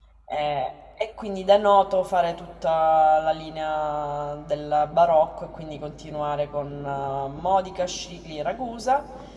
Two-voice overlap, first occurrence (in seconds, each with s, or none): none